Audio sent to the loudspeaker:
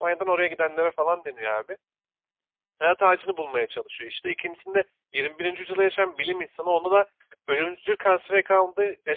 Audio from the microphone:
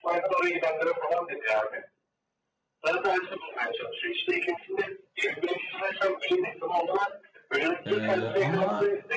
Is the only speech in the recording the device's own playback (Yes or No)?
No